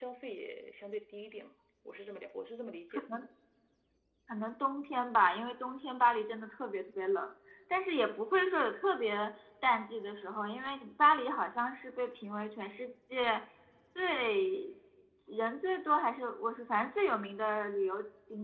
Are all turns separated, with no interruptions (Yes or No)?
Yes